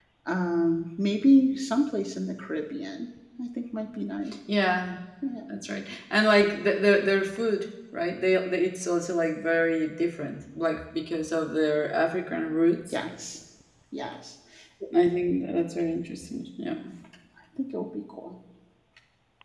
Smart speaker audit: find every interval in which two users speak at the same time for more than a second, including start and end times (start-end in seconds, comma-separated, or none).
none